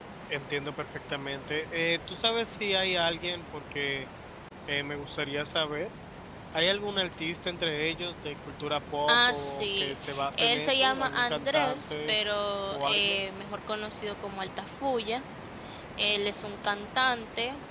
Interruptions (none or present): present